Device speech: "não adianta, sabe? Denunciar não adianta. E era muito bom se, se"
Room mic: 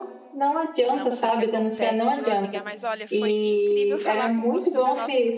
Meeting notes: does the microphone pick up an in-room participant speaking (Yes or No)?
Yes